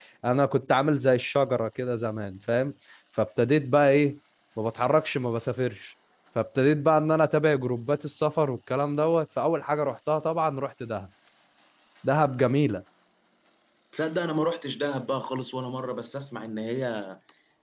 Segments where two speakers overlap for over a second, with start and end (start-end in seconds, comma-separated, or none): none